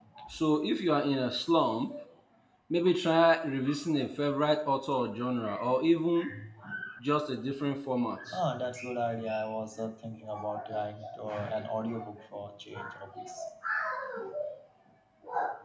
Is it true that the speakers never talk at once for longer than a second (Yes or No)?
Yes